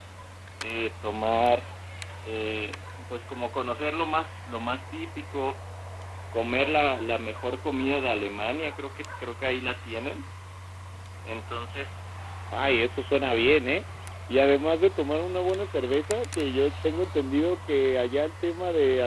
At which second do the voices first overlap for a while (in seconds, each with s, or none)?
none